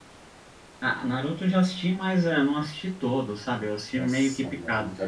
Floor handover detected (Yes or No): Yes